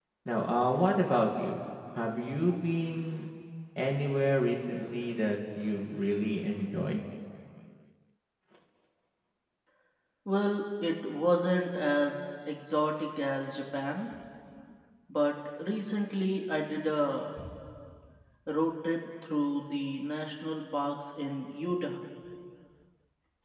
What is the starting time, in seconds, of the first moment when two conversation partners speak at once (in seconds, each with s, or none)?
none